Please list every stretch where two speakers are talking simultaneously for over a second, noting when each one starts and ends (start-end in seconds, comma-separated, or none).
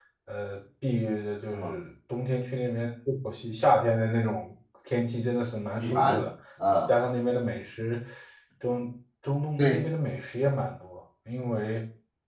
none